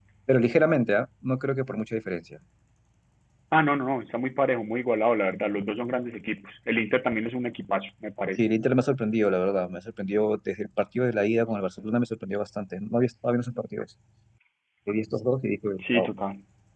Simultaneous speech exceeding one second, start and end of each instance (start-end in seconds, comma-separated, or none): none